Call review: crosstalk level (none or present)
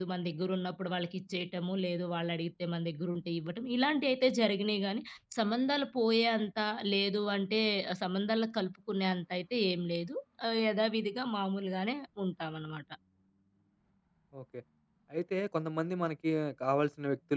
none